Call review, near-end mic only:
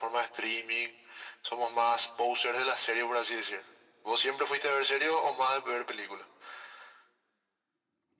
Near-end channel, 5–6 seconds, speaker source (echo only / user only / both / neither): echo only